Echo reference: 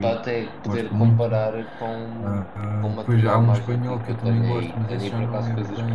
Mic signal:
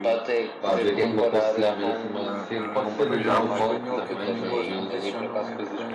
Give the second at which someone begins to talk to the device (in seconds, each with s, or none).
0.6 s